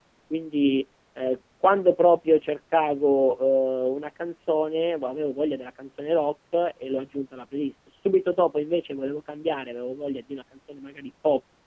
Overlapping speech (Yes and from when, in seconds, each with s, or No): No